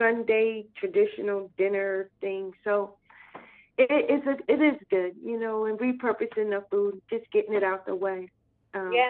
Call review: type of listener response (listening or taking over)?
taking over